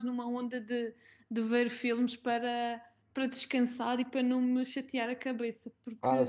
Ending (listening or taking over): taking over